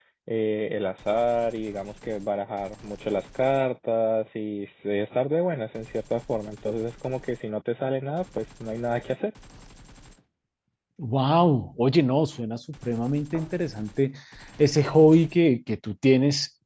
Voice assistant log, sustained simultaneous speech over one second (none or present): none